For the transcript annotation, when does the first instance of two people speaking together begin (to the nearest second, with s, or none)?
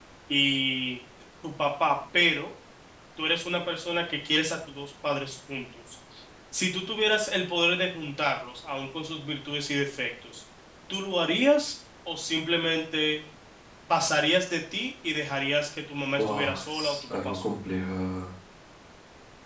16 s